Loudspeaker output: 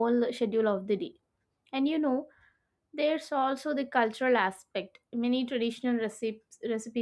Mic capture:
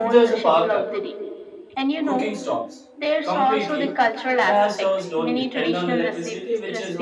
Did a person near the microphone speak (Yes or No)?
Yes